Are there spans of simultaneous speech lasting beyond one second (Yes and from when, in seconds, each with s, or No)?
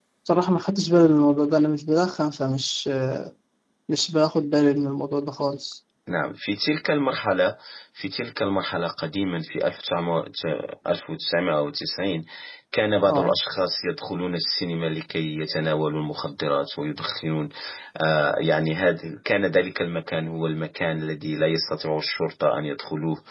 No